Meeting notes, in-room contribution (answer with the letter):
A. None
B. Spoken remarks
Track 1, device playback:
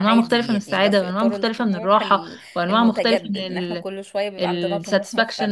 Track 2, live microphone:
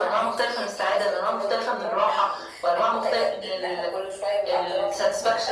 A